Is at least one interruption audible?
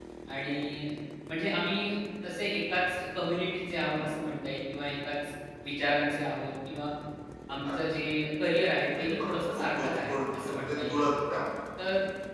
Yes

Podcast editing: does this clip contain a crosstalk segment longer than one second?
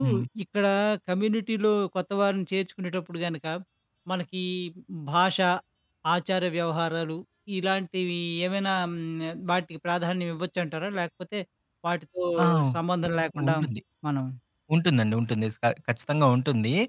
No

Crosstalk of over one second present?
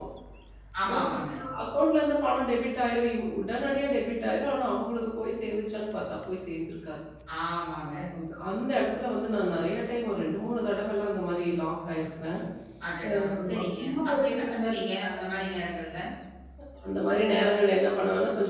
Yes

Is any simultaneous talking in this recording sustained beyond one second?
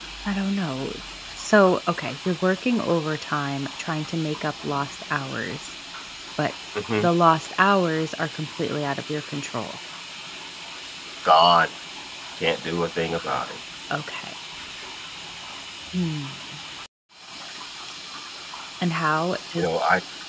No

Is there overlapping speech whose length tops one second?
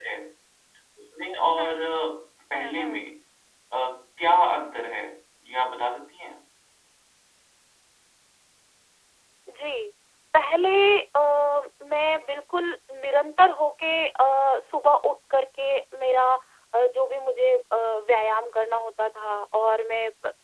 No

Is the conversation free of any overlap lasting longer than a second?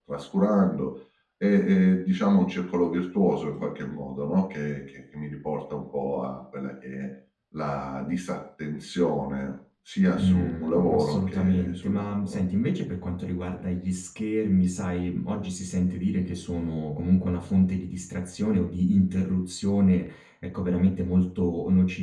No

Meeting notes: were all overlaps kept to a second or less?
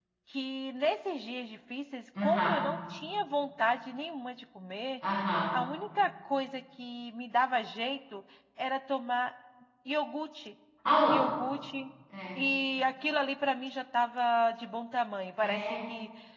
Yes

